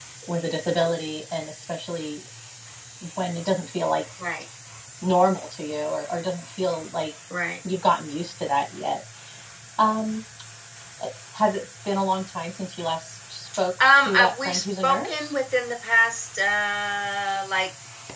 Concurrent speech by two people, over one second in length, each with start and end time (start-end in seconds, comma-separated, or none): 13.9-15.3